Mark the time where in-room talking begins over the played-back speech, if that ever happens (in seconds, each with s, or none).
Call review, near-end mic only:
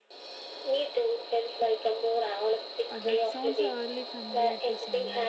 2.9 s